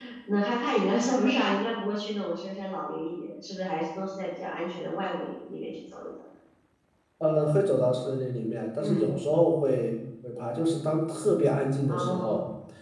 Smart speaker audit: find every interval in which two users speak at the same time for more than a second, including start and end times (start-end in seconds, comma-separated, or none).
none